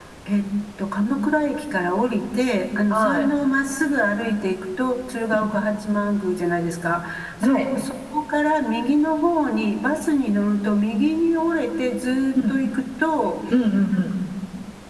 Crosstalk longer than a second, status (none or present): none